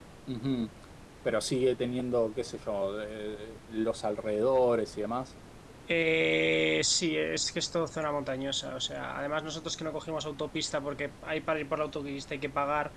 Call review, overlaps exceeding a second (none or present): none